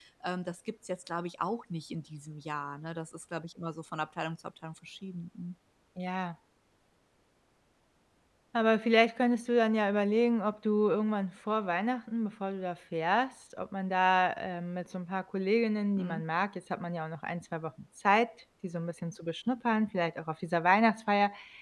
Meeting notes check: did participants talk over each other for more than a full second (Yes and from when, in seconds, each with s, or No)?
No